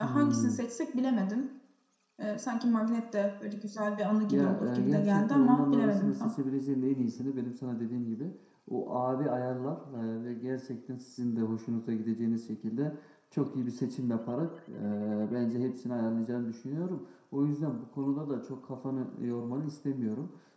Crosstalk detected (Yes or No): Yes